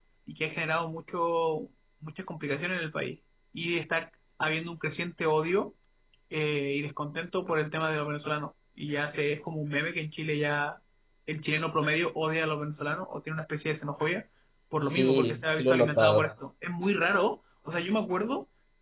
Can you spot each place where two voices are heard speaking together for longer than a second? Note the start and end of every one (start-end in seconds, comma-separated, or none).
14.8-16.3